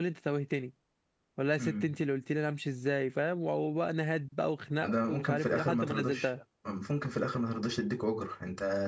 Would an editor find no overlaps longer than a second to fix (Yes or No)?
No